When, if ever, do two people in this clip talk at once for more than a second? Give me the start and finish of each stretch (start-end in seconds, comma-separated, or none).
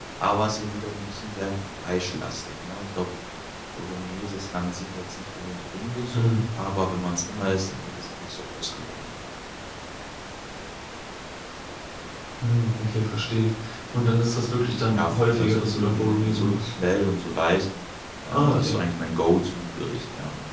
14.8-16.7